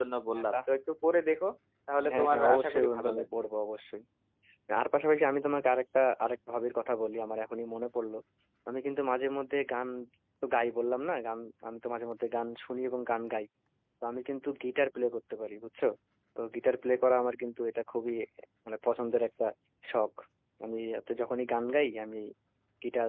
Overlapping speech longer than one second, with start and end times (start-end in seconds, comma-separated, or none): 2.1-3.4